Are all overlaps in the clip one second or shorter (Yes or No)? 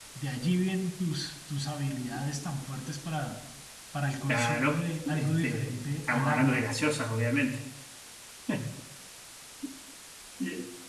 No